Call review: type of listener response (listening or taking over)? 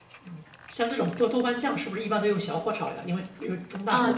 taking over